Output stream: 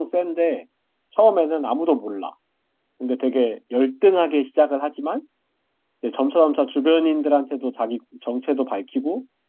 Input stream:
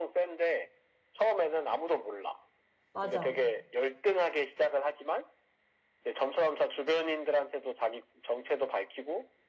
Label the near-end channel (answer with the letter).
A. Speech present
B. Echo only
A